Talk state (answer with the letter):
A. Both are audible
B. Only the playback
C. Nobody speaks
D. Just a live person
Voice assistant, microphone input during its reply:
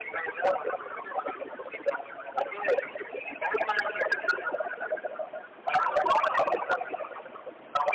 B